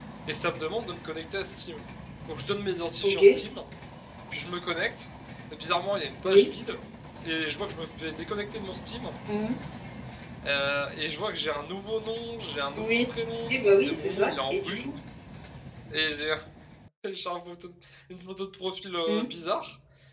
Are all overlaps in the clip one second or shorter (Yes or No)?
No